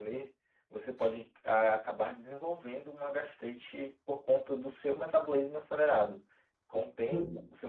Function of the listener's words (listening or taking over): listening